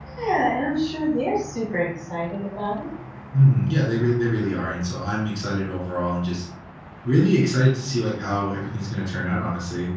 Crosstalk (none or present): none